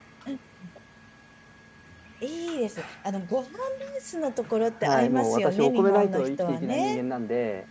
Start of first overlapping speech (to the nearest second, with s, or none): 5 s